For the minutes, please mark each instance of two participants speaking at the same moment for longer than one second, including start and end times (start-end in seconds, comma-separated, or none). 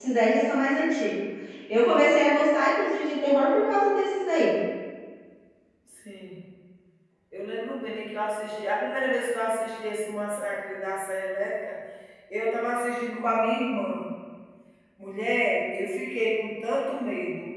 none